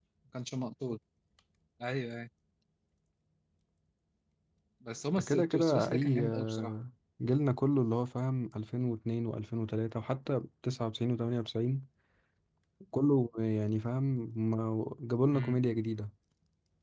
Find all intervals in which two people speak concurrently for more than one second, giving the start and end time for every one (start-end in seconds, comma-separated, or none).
5.3-6.7